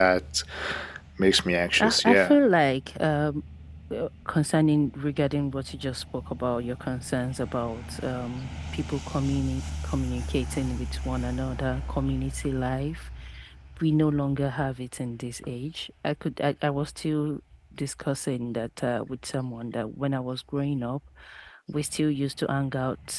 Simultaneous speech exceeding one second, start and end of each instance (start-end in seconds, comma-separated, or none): none